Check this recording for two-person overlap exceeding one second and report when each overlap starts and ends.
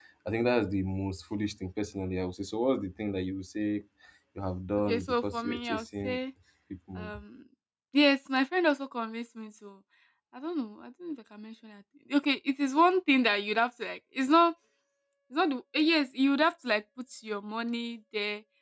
4.9-6.2

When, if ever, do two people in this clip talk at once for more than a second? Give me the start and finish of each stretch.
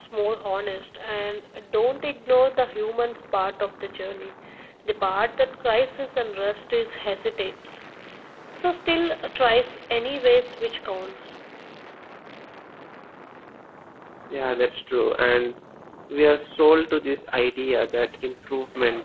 none

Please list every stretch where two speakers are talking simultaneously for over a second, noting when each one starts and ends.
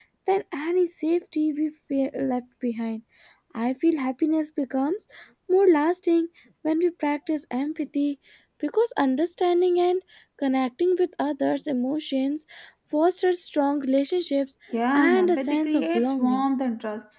14.9-16.4

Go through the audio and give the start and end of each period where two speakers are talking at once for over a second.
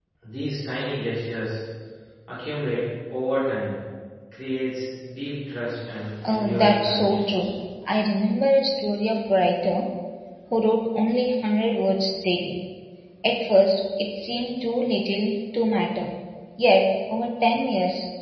6.3-7.5

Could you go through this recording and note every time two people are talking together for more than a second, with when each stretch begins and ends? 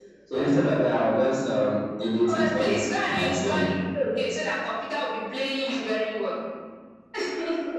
2.2-3.7

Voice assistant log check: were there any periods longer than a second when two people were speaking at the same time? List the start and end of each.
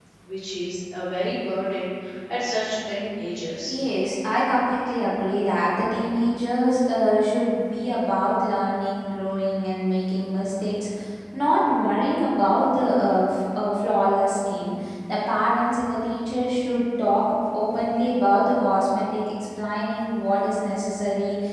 none

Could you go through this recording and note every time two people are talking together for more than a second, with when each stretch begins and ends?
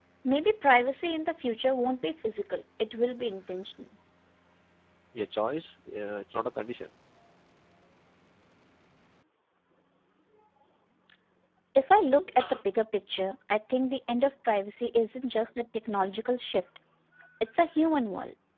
none

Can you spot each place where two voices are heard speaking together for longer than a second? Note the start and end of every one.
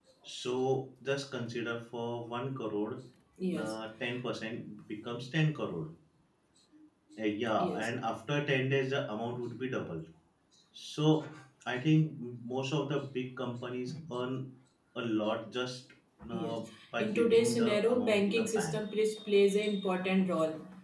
17.0-18.8

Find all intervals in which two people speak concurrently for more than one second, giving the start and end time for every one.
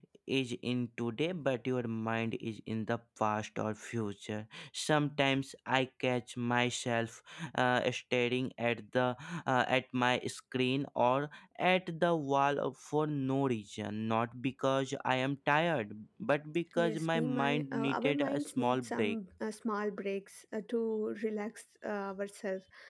16.8-19.2

